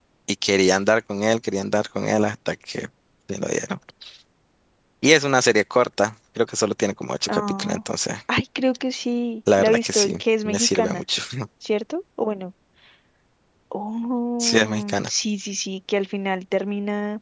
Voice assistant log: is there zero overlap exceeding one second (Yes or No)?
No